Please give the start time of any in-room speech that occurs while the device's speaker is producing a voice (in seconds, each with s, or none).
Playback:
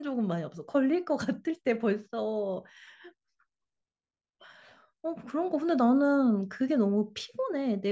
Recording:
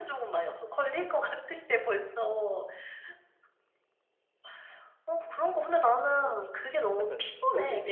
6.2 s